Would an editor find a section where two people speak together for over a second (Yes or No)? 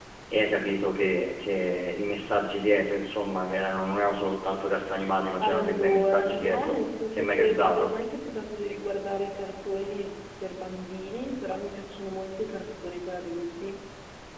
Yes